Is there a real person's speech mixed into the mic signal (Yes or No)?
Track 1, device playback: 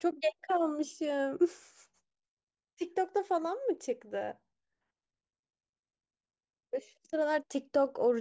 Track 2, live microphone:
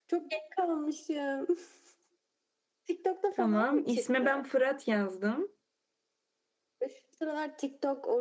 Yes